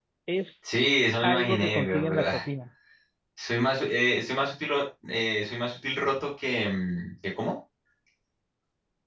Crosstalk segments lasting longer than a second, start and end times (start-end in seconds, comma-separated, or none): 1.2-2.4